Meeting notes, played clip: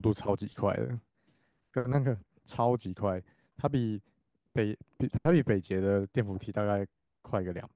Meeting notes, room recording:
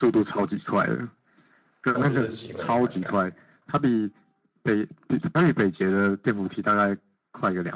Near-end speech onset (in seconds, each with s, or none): 1.9 s